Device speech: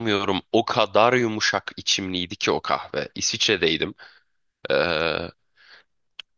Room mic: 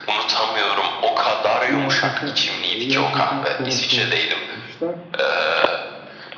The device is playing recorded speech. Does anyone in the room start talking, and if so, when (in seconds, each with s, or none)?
1.7 s